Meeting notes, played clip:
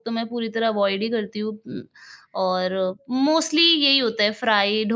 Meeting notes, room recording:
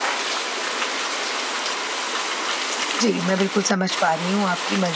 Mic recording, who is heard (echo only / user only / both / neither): user only